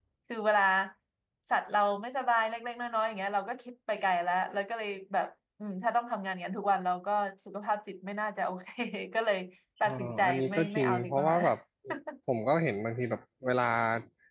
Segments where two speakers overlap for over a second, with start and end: 9.8-11.3

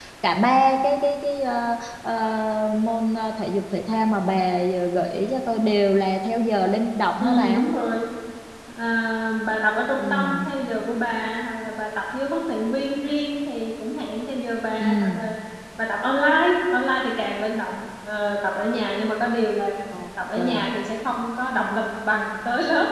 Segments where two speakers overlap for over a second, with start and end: none

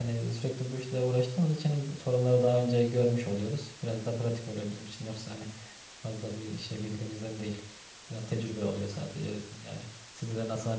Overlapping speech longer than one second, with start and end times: none

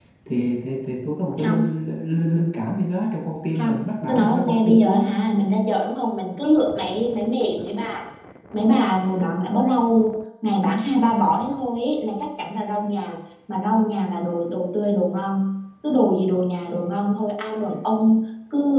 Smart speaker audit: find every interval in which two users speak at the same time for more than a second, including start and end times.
3.6-5.0

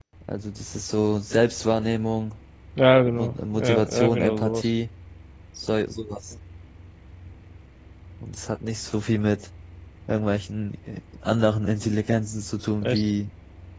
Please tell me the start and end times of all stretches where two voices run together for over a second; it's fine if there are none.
3.1-4.7

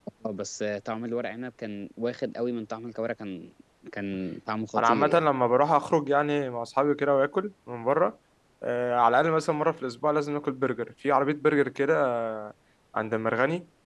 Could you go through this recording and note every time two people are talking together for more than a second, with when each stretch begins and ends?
none

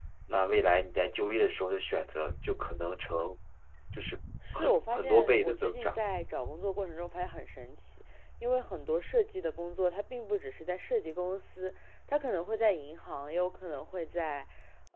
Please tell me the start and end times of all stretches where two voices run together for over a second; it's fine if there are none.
4.5-6.0

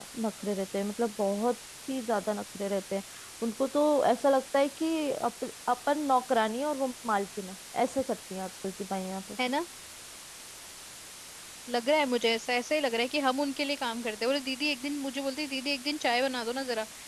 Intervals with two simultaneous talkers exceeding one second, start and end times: none

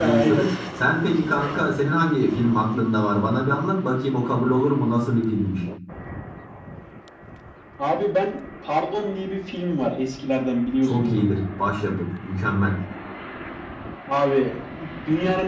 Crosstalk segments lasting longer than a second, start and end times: none

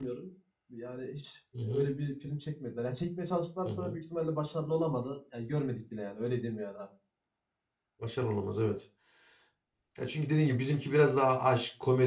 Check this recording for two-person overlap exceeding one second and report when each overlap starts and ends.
none

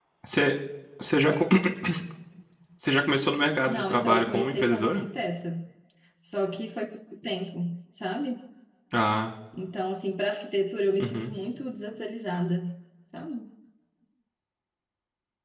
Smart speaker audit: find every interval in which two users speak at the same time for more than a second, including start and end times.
3.6-5.0

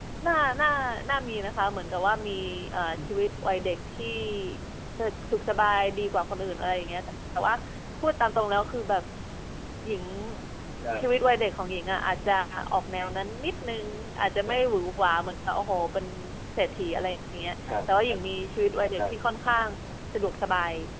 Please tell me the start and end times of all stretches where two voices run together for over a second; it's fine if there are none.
none

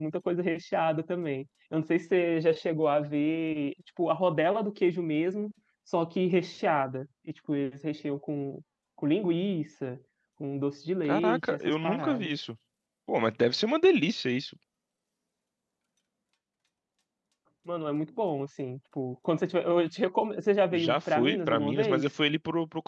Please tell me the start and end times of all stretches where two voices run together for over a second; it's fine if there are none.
11.0-12.3, 20.7-22.0

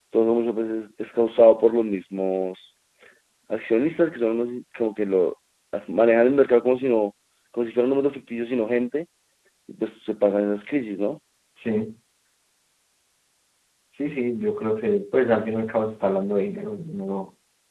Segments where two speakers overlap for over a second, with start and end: none

